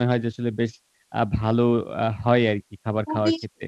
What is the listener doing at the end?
taking over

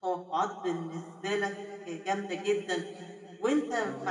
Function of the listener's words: listening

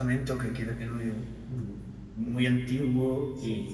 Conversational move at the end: listening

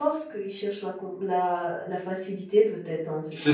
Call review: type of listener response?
taking over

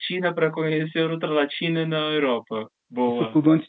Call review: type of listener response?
taking over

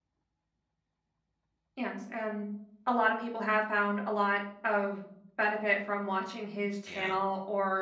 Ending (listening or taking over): listening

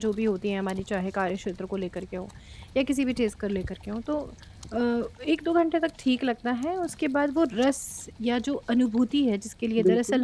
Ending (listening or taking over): listening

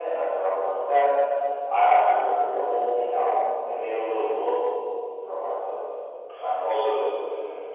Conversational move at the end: taking over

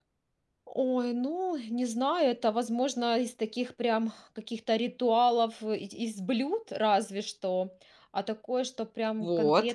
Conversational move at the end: taking over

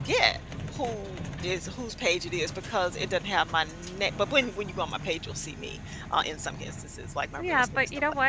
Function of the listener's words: taking over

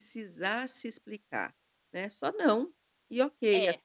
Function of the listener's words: listening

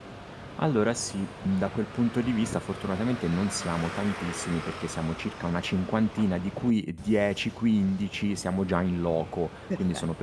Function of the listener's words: listening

